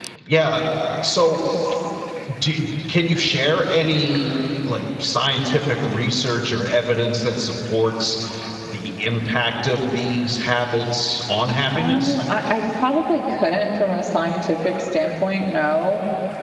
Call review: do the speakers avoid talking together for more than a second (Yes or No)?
Yes